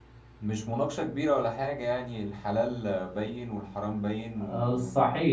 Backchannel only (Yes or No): No